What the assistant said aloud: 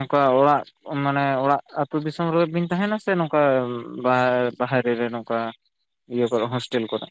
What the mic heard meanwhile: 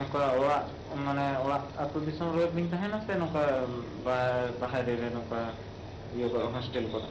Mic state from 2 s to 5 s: echo only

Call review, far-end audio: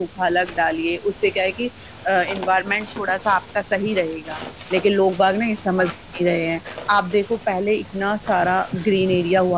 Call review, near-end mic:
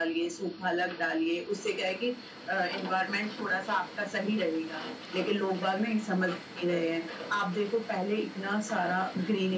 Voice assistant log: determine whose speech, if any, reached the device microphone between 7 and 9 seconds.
echo only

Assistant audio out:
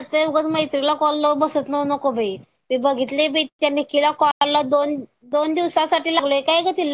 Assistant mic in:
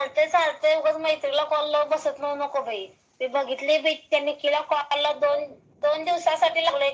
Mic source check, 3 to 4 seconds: echo only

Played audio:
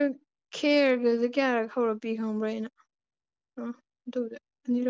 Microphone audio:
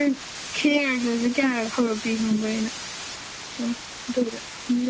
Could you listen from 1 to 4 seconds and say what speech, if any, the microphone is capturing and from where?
echo only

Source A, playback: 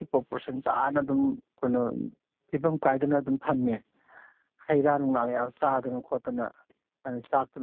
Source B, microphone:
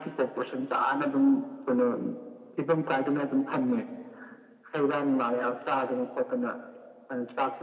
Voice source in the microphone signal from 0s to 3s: echo only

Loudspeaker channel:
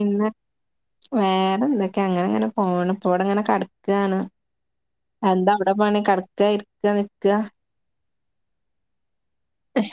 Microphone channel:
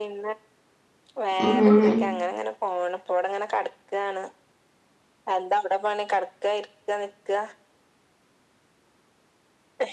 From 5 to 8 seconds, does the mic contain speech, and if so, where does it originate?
echo only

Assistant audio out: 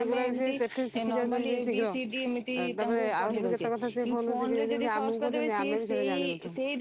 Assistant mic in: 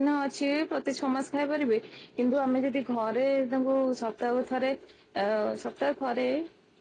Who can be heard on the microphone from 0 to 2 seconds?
user only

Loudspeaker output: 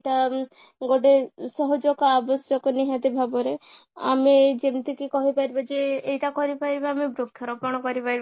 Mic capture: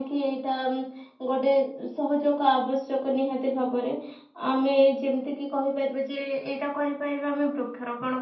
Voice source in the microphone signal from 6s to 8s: echo only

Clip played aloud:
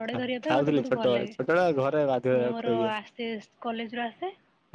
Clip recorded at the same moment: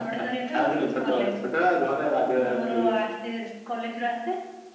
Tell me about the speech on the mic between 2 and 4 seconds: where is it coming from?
echo only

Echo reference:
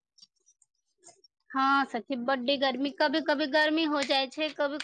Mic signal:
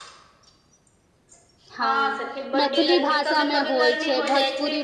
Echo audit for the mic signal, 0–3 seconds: both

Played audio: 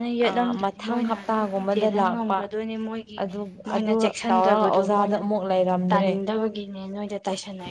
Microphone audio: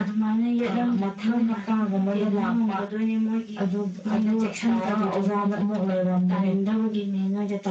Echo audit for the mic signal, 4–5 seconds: echo only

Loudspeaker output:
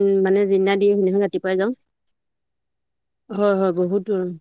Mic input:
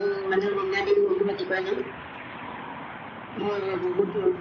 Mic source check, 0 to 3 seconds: echo only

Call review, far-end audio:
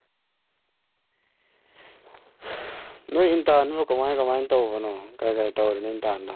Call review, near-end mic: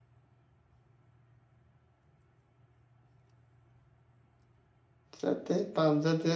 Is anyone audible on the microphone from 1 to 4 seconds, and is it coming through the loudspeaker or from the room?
neither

